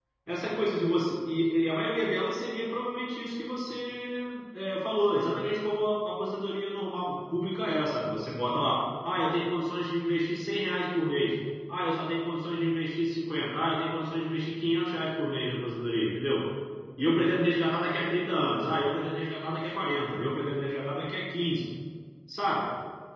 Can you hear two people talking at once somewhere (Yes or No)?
No